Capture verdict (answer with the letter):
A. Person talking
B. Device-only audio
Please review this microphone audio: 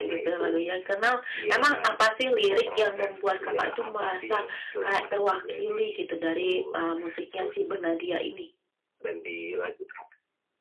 A